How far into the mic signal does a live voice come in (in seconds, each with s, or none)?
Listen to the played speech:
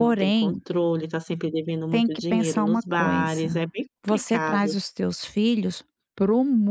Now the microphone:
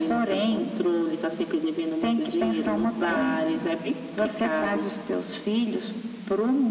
none